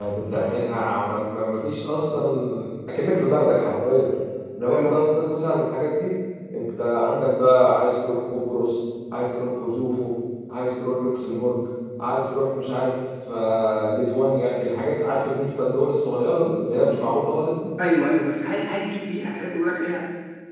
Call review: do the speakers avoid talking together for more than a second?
Yes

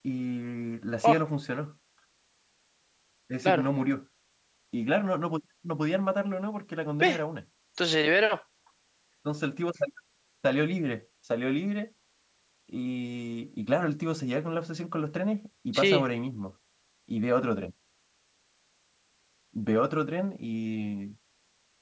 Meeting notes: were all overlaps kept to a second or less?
Yes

